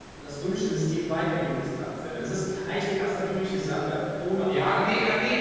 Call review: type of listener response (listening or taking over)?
taking over